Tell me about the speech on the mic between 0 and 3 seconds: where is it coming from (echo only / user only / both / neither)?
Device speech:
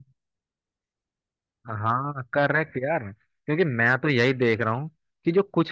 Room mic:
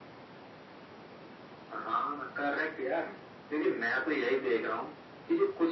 echo only